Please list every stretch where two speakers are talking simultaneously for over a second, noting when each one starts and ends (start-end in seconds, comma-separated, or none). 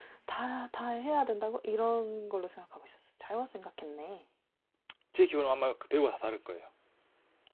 none